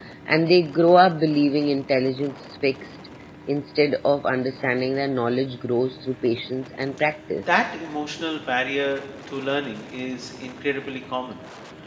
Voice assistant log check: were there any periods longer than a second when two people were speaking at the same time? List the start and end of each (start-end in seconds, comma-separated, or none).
none